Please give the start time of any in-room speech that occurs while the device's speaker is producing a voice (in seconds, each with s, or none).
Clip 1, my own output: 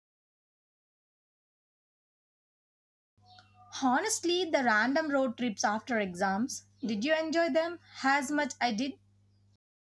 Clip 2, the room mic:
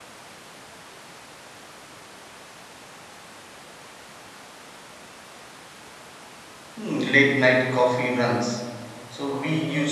6.8 s